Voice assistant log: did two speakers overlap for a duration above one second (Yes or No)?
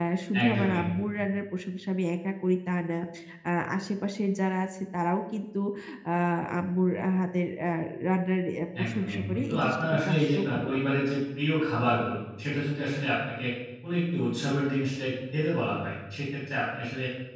Yes